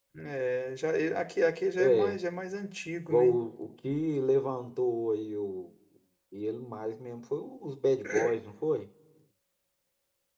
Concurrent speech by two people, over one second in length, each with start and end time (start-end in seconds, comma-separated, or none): none